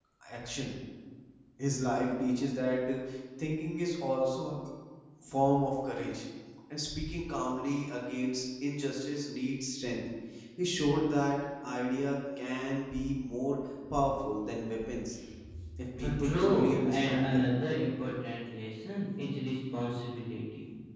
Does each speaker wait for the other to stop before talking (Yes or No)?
No